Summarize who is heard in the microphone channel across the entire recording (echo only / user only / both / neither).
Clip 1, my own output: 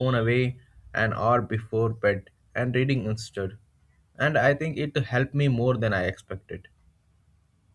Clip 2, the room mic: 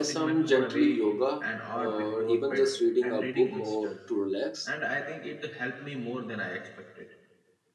both